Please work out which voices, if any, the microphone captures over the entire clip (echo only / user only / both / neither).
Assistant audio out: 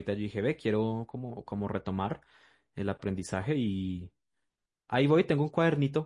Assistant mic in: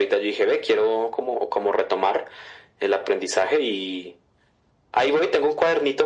echo only